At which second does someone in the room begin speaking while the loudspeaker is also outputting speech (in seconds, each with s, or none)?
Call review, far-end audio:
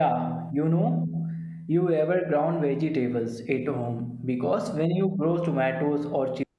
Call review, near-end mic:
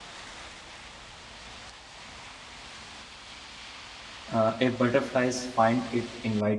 4.3 s